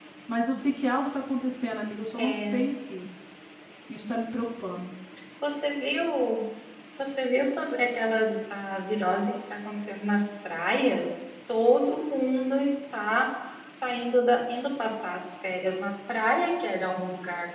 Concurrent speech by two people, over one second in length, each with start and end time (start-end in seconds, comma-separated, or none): none